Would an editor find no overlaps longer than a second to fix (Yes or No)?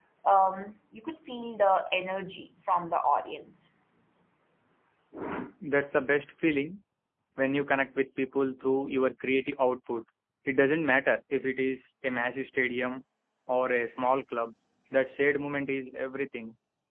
Yes